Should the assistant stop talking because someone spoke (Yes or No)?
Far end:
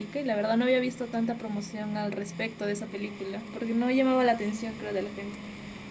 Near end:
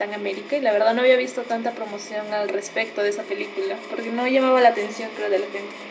No